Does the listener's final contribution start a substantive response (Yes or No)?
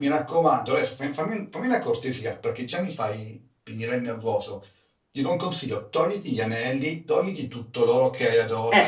Yes